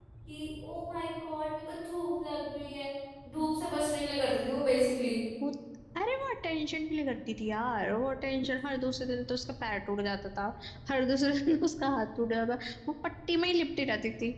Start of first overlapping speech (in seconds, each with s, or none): none